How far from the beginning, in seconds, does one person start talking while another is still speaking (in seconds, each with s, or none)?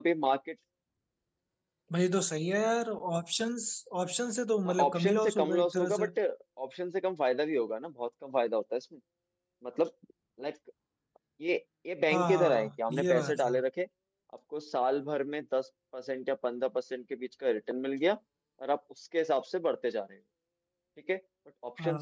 4.7 s